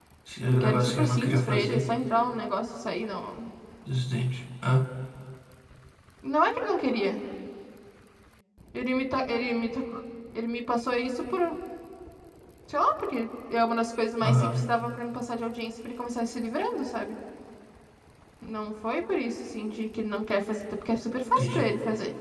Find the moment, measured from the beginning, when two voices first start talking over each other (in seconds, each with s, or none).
0.5 s